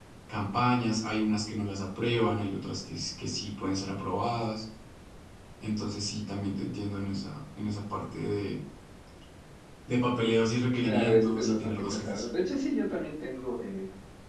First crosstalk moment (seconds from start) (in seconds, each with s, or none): 10.7 s